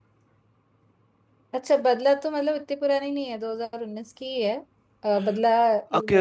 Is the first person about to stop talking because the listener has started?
Yes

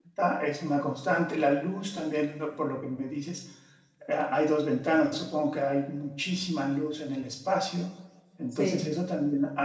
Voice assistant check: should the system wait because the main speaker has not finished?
Yes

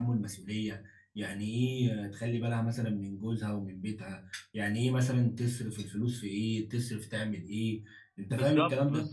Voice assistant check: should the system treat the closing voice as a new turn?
Yes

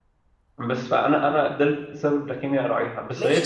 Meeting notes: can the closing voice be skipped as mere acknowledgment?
No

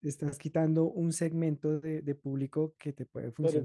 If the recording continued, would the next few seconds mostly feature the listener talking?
Yes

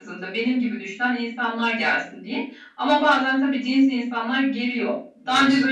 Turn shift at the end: No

